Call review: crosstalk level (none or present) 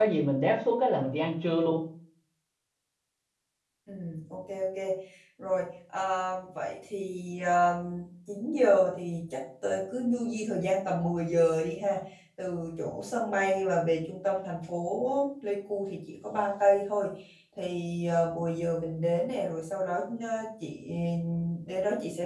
none